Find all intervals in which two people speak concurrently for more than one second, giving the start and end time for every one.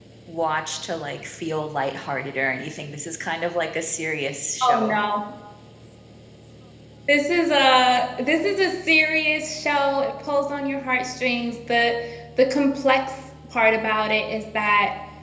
none

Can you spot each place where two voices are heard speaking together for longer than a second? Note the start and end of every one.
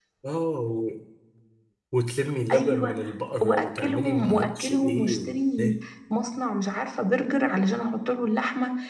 3.4-5.7

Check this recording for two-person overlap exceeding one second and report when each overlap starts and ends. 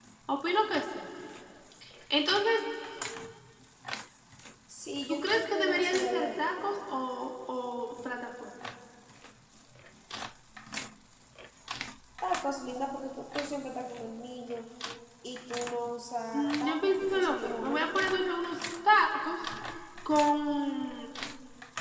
5.1-7.0, 16.3-18.1

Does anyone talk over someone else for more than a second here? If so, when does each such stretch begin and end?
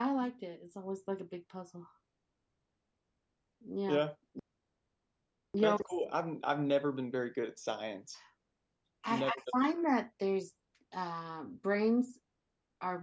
none

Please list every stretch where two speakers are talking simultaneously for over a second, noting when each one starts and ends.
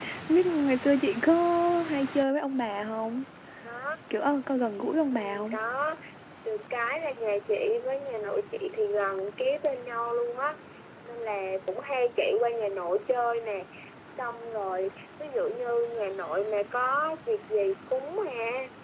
none

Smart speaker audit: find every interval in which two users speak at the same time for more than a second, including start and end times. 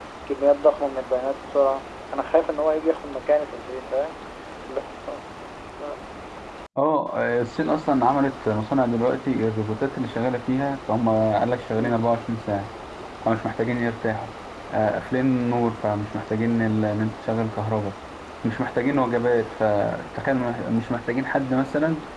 none

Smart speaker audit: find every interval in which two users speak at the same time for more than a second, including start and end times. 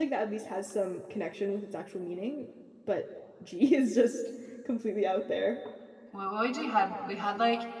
none

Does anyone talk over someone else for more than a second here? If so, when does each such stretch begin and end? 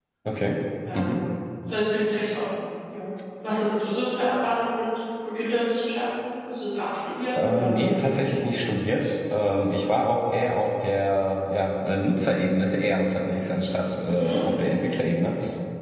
none

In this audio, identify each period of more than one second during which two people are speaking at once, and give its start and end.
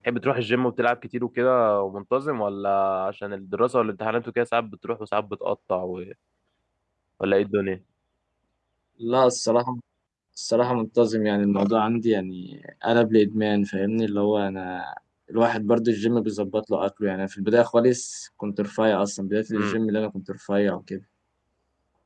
none

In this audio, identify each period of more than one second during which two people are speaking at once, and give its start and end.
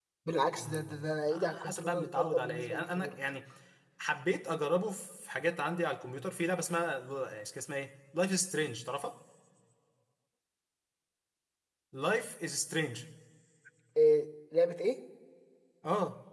0.6-3.1

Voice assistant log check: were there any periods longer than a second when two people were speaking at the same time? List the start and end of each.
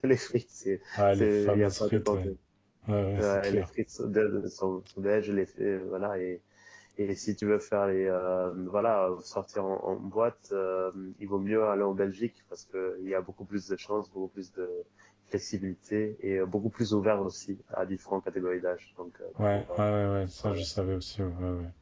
1.0-2.3

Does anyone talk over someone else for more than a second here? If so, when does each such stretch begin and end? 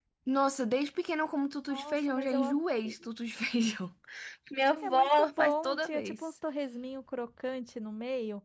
1.7-2.9, 4.8-6.2

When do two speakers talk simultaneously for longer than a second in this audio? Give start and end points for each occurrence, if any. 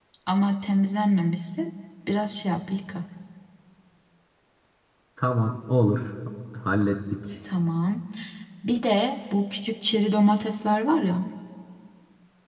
none

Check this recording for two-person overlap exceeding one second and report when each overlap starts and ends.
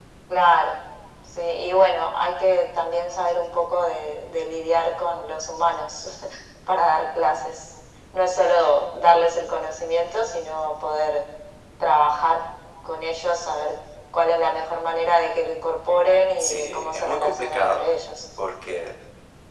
16.4-17.9

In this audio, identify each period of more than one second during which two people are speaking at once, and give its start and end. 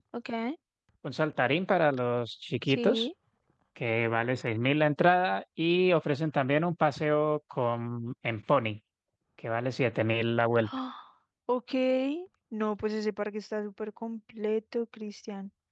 none

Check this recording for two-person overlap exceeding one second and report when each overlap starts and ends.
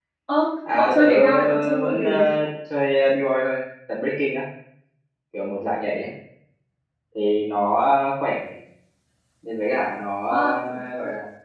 0.7-2.0

